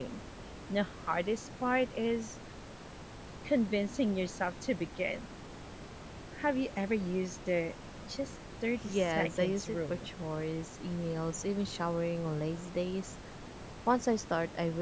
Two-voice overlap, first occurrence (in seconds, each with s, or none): 8.8 s